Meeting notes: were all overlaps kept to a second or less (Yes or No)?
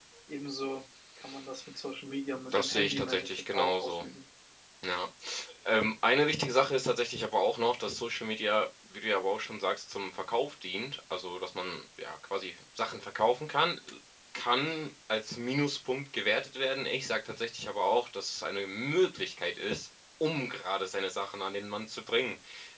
No